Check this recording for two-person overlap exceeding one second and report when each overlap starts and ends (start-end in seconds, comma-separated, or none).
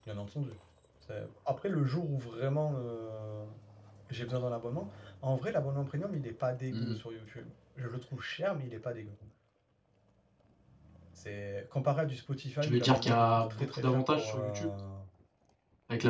12.6-14.7